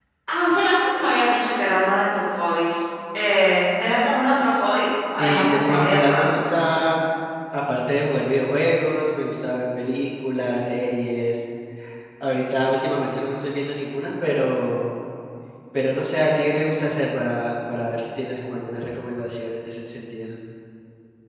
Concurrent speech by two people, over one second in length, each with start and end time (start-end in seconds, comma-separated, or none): 5.2-6.4